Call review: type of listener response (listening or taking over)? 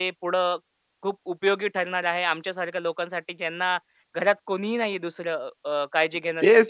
taking over